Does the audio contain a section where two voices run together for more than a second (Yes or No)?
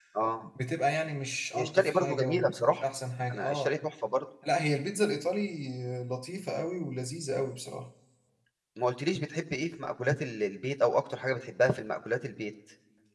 Yes